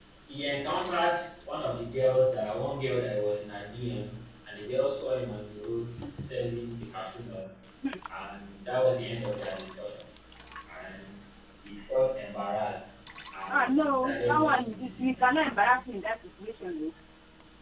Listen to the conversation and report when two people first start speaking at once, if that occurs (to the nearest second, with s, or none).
13 s